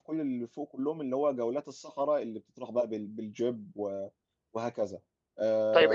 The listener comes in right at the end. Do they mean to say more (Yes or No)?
Yes